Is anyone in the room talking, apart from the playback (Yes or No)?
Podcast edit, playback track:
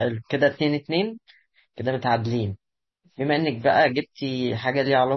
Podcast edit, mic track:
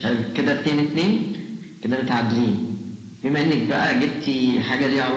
No